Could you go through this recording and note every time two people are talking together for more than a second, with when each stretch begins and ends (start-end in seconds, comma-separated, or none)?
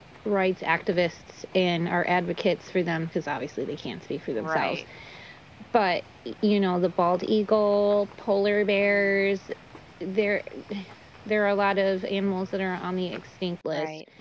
none